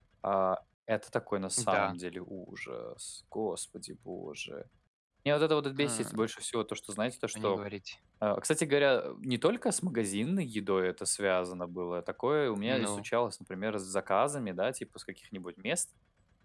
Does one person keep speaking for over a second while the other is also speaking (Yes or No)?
No